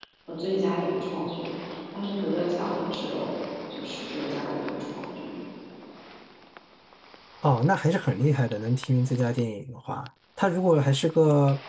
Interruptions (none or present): none